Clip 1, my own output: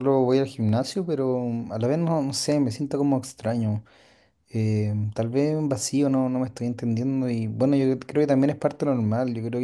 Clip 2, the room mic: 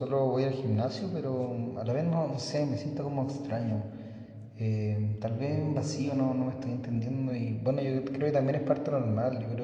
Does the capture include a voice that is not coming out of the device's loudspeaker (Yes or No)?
No